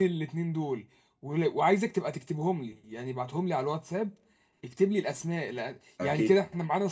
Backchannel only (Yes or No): Yes